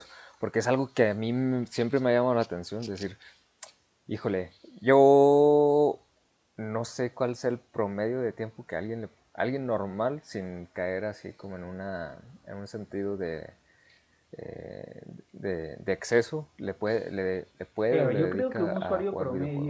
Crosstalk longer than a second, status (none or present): present